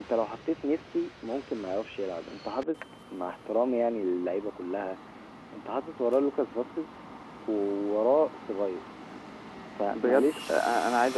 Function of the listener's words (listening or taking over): taking over